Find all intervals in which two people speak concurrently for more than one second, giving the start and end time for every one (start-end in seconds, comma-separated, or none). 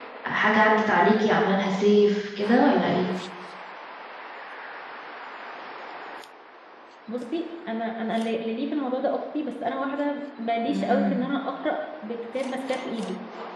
none